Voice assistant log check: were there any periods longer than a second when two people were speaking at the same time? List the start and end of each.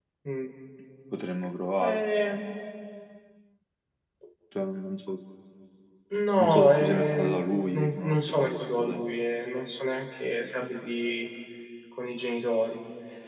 6.4-9.0

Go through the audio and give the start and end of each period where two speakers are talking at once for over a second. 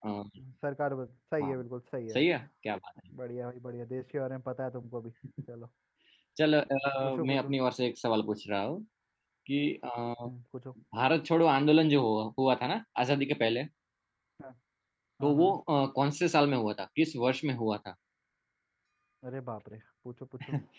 none

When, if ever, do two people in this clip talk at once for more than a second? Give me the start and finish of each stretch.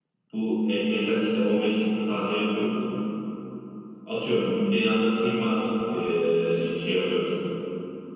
none

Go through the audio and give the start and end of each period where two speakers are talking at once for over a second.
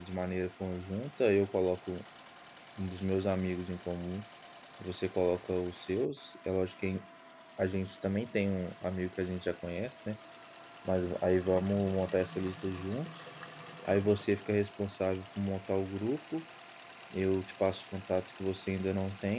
none

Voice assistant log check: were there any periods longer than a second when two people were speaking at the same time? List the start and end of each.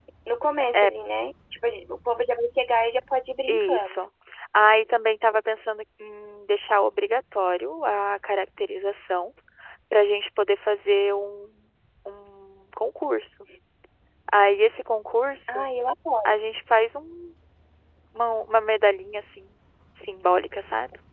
none

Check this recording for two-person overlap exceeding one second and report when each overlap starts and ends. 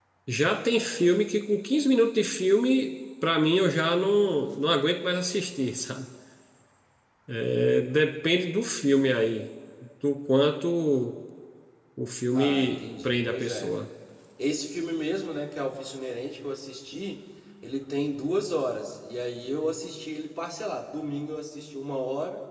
12.3-13.7

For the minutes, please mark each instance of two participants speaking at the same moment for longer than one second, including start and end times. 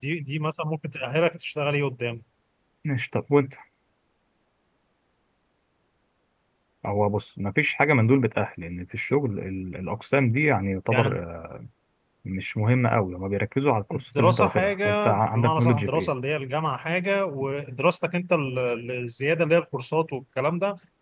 13.9-16.1

